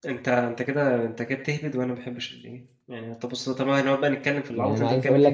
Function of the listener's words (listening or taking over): taking over